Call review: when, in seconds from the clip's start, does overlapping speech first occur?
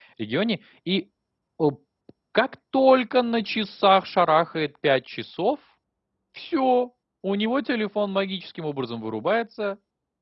none

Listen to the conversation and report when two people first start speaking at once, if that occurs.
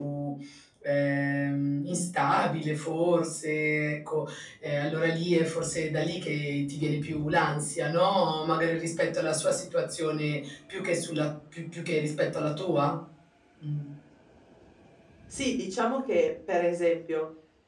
none

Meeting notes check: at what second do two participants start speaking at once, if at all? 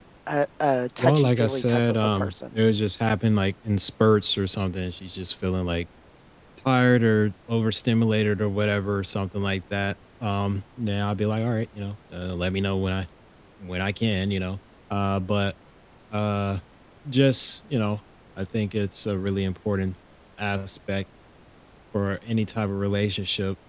1.0 s

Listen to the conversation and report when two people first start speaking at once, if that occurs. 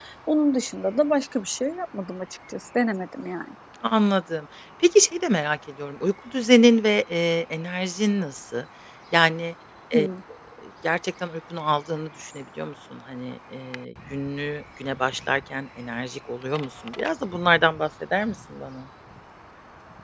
none

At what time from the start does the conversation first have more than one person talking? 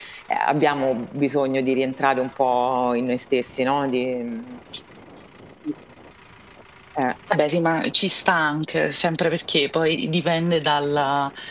none

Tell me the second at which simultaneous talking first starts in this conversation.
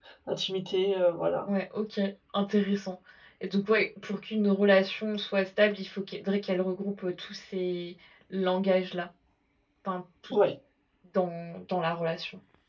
none

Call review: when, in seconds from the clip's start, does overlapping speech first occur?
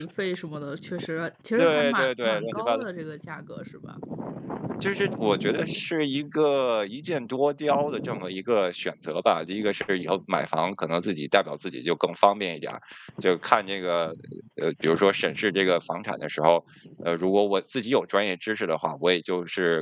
1.6 s

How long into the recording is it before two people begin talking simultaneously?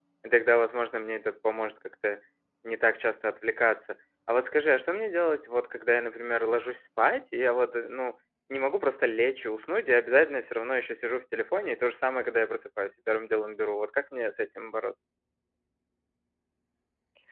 none

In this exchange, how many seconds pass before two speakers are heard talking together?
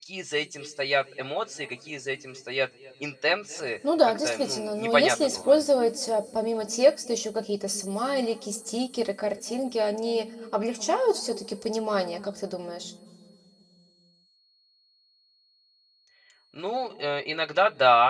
3.8 s

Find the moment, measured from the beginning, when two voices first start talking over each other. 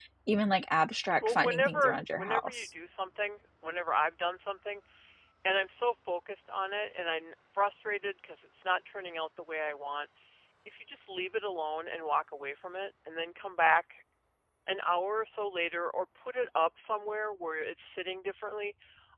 1.2 s

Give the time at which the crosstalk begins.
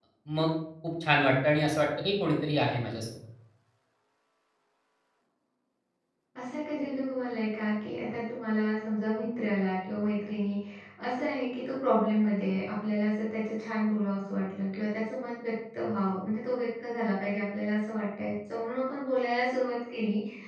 none

